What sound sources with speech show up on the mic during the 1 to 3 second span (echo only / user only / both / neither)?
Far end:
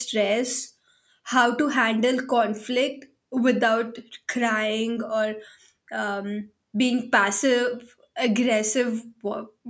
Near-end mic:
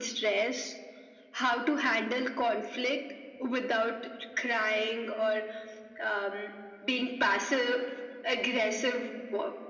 echo only